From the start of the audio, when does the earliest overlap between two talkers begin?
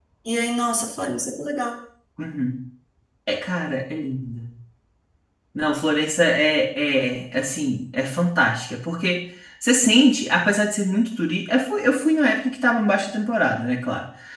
none

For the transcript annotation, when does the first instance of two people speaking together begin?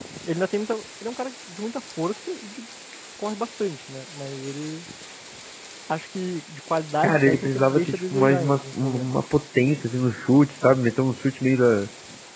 7.0 s

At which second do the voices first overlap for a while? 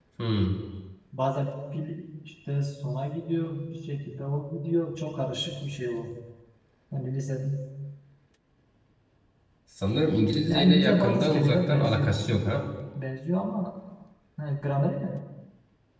10.5 s

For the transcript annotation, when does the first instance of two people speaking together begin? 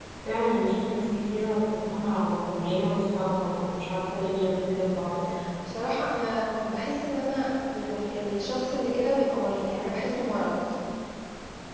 none

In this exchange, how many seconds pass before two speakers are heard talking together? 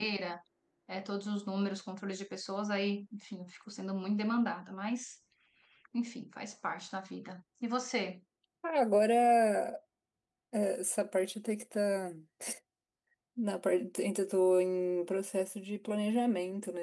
none

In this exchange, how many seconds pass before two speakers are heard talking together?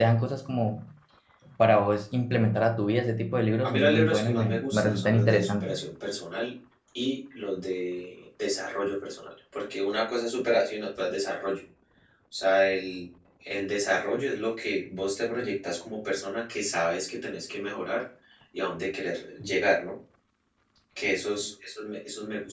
3.6 s

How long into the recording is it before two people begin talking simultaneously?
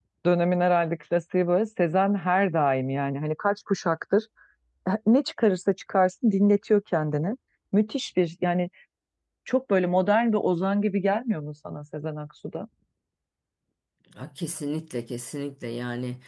none

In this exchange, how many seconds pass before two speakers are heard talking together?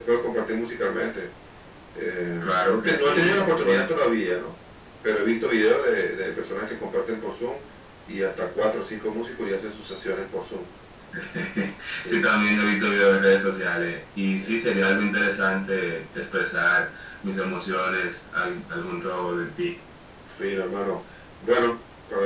2.4 s

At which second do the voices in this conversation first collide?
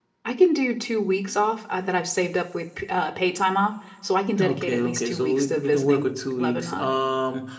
4.4 s

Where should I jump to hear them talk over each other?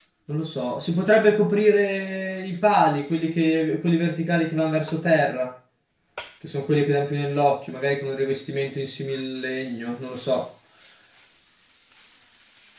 none

